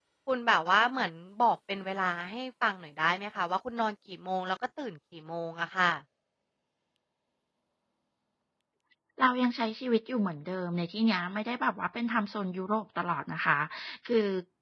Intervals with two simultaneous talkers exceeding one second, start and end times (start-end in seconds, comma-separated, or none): none